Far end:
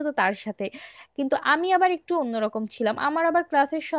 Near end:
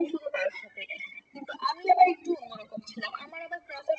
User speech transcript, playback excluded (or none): none